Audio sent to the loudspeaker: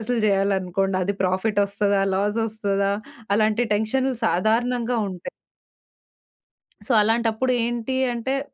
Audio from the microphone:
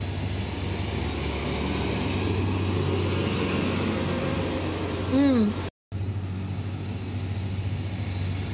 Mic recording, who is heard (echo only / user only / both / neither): user only